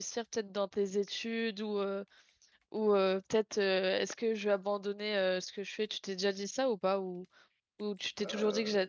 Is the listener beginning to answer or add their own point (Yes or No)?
Yes